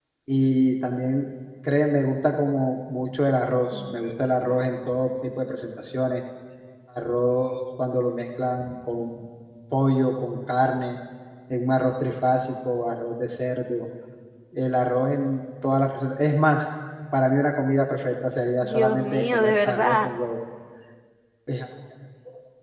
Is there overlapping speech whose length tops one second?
Yes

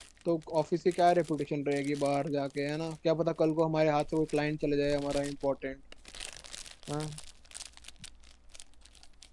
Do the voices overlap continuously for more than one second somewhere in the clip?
No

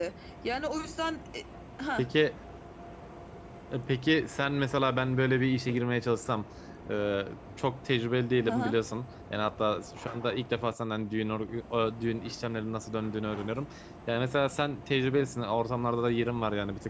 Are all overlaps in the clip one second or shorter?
Yes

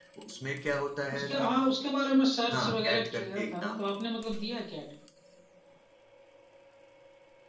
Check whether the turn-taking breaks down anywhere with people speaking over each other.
Yes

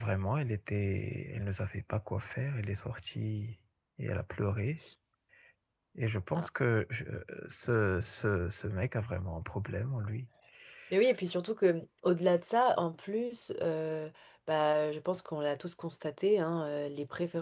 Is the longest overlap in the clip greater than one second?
No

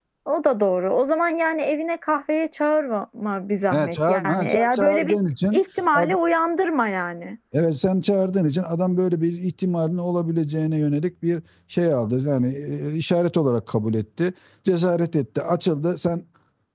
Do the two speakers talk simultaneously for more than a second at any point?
Yes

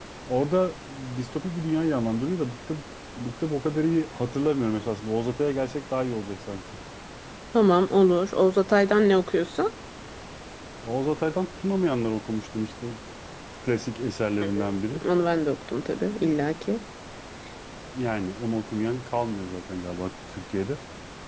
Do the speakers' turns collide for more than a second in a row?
No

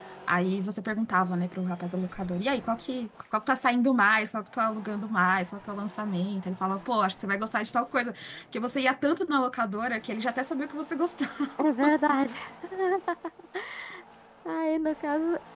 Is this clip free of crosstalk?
Yes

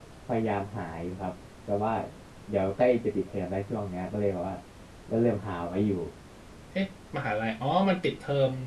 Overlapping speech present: No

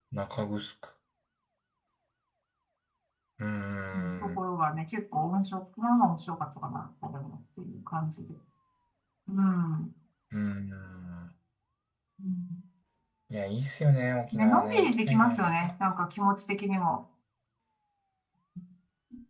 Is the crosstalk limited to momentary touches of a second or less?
No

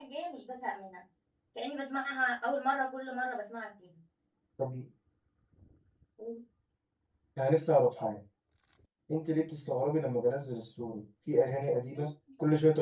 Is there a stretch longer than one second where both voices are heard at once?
No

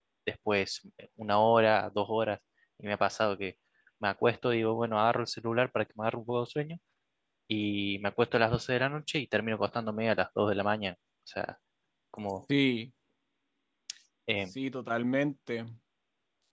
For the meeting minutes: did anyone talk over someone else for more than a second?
No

